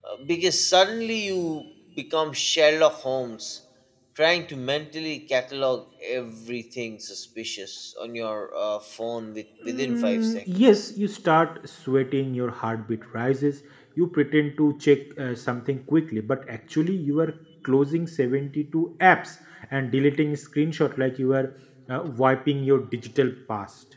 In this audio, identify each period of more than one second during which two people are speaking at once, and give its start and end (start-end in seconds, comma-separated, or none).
9.7-10.9